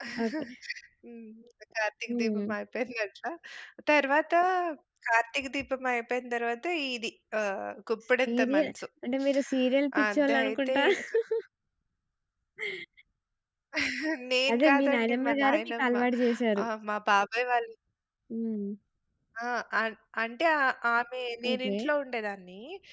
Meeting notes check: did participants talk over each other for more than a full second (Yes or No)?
Yes